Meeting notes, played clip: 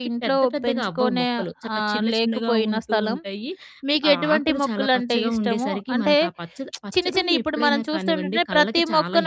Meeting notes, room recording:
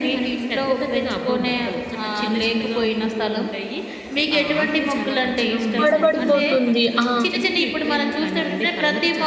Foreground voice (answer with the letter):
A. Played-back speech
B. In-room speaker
B